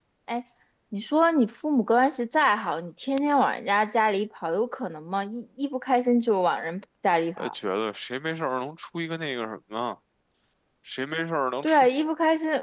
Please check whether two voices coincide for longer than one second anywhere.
No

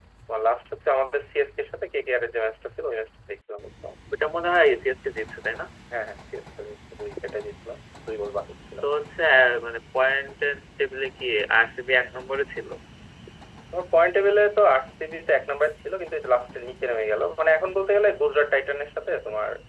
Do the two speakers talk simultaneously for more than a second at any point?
No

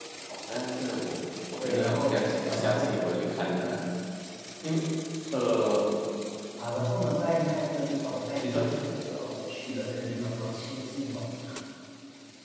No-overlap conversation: No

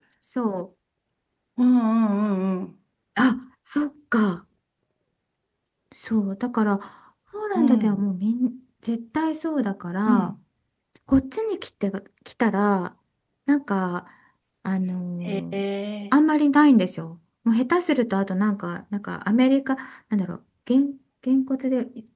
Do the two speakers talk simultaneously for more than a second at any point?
No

